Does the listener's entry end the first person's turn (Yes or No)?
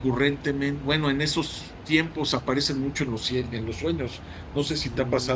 Yes